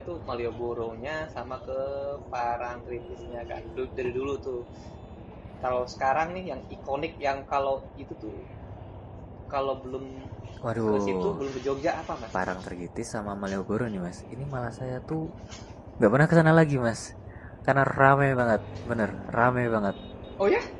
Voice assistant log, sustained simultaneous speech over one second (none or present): none